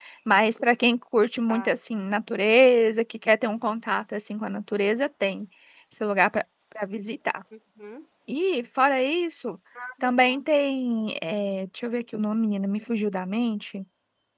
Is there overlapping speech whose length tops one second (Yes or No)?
No